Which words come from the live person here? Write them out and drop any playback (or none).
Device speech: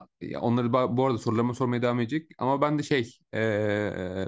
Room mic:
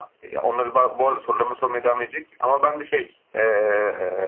none